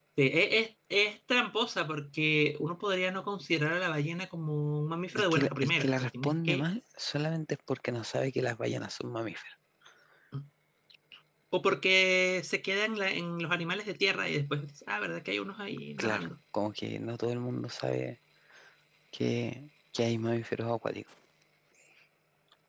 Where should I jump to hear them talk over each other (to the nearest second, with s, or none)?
5 s